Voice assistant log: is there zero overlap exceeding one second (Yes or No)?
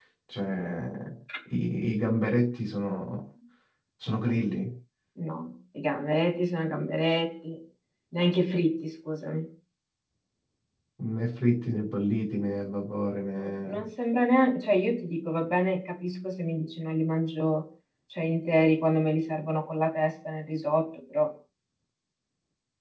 Yes